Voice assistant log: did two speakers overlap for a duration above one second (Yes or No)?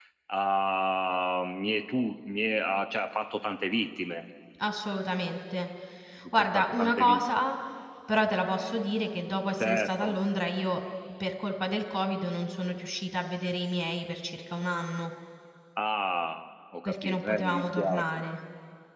Yes